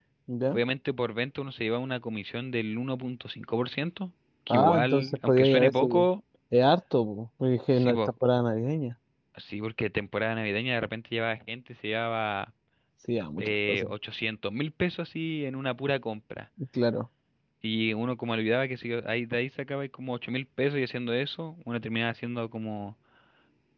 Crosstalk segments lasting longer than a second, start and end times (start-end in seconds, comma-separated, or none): 4.5-5.9